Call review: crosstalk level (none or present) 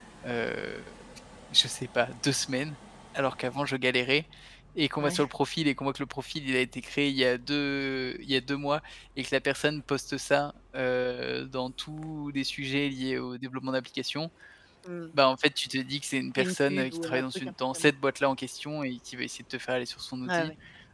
present